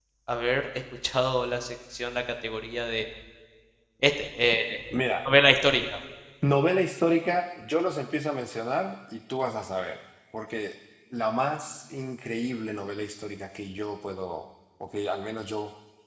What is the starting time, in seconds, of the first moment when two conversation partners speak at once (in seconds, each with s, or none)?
none